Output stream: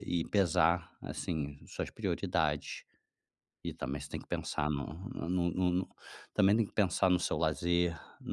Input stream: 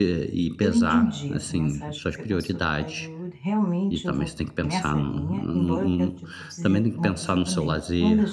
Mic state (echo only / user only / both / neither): both